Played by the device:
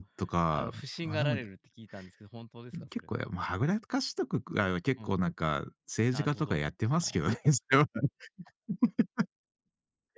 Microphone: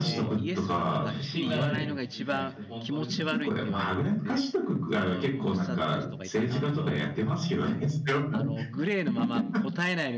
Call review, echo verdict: present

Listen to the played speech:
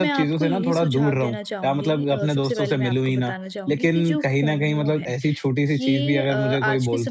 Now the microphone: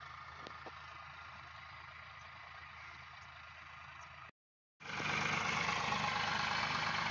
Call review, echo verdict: none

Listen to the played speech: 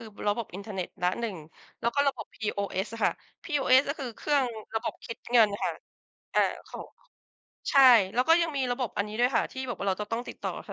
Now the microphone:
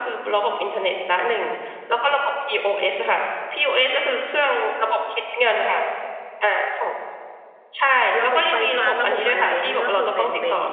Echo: present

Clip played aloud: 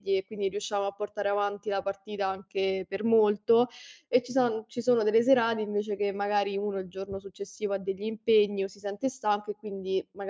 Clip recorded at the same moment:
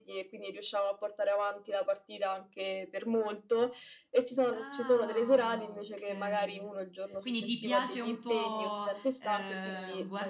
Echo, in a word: present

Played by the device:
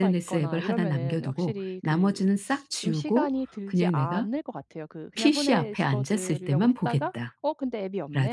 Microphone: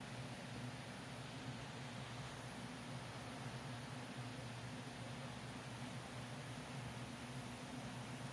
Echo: none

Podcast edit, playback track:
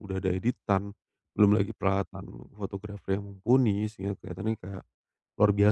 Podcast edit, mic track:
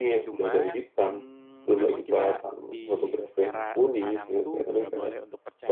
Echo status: present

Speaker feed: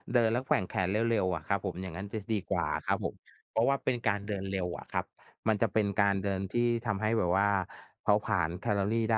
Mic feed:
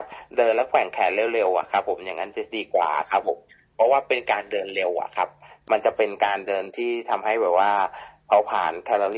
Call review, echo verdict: present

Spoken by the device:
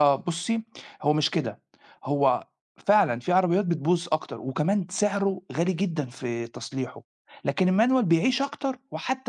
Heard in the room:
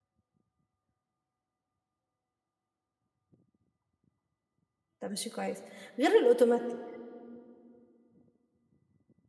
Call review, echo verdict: none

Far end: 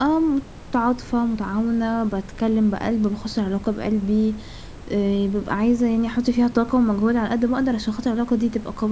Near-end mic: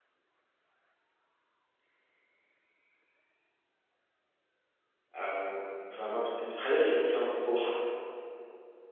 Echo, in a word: none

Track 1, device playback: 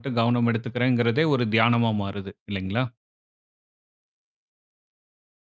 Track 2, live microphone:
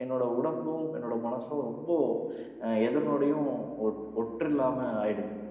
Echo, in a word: none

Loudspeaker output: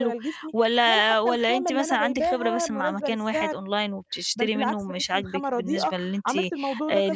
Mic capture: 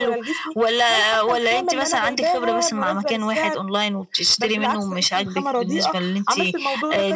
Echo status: present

